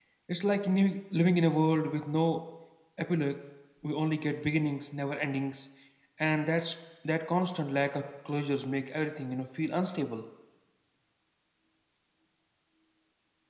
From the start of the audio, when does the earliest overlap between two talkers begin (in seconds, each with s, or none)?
none